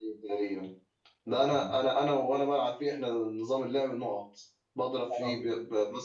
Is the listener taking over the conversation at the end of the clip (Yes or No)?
No